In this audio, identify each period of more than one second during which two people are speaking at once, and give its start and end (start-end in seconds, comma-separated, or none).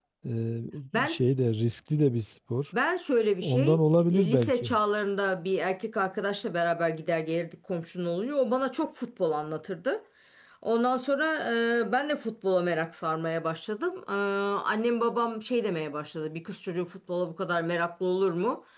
3.4-4.7